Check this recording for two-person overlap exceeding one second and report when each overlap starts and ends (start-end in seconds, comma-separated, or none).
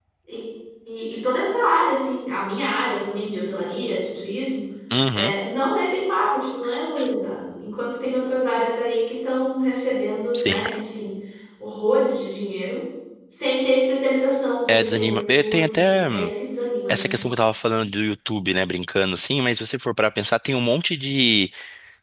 14.7-16.1